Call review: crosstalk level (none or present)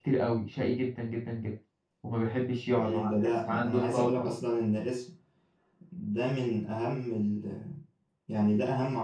present